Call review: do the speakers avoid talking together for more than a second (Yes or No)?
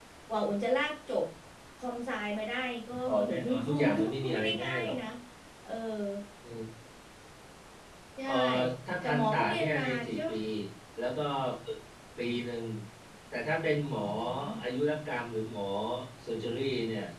No